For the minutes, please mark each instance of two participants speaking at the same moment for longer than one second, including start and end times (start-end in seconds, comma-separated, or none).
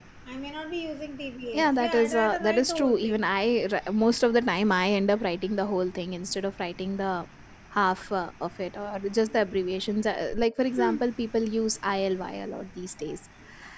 1.5-3.2